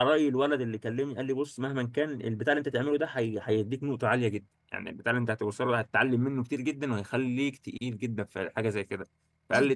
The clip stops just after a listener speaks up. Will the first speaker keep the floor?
Yes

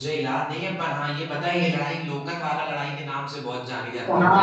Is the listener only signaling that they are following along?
No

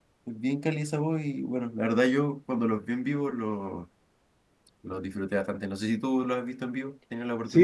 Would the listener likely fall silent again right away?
No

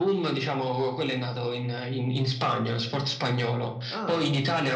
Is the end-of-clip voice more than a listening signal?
No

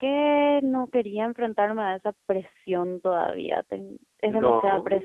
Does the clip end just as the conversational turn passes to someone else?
No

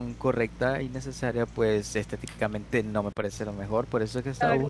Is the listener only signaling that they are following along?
Yes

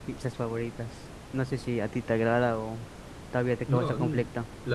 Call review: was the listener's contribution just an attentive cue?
No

